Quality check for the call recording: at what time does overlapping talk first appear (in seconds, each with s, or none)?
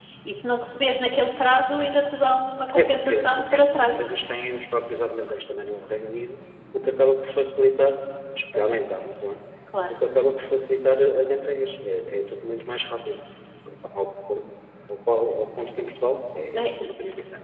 2.8 s